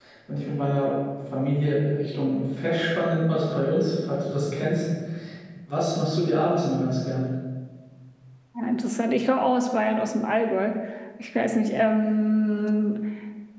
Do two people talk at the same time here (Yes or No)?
No